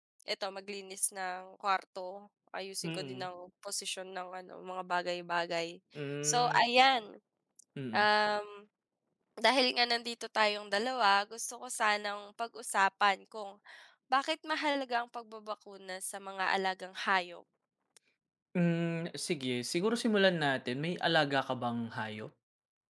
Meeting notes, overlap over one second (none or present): none